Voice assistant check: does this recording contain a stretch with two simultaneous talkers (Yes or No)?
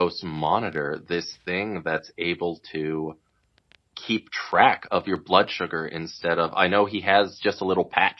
No